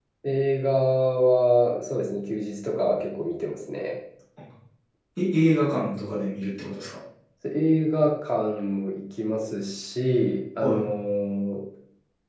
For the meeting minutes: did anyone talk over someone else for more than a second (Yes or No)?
No